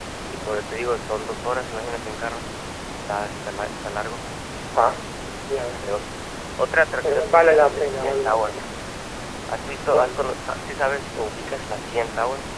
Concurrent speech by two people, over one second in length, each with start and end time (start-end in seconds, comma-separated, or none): 7.0-8.6